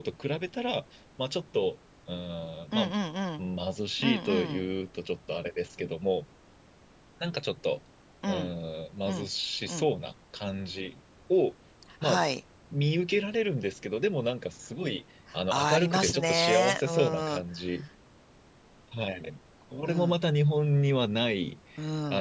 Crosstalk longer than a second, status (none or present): present